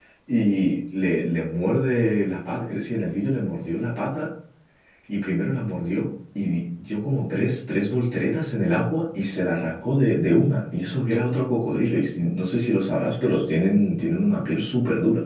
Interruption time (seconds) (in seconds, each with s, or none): none